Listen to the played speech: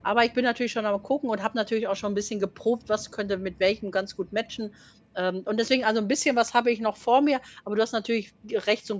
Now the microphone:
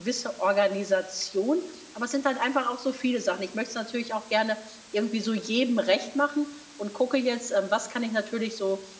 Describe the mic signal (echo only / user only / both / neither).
user only